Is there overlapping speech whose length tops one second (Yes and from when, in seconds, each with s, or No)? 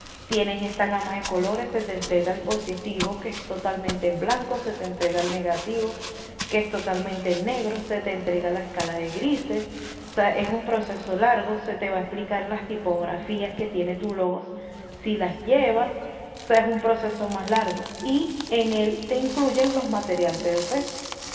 No